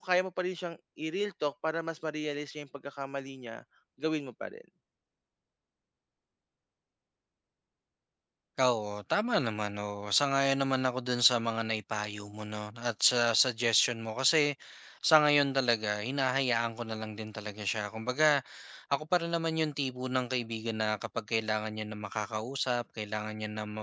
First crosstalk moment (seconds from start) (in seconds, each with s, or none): none